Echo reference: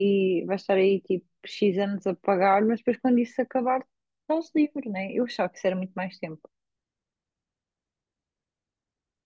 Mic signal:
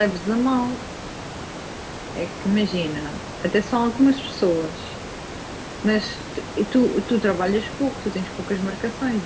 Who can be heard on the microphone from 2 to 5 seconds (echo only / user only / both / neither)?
user only